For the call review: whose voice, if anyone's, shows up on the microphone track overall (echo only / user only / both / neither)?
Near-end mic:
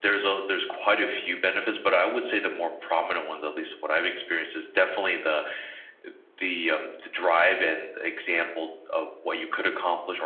echo only